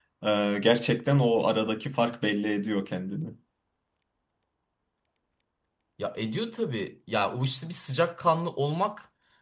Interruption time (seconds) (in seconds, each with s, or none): none